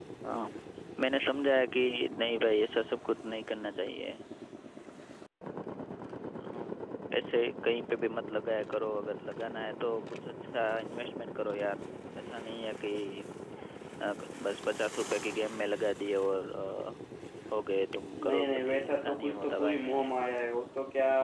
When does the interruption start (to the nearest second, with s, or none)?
18 s